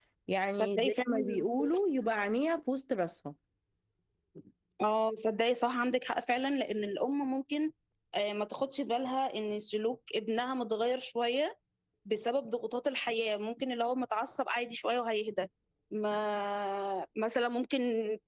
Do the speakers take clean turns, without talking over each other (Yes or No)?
No